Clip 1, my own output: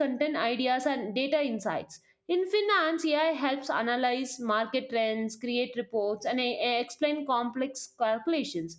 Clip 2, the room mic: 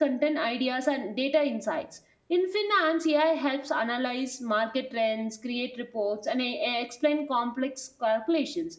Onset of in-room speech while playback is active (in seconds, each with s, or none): none